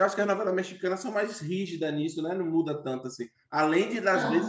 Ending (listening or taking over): listening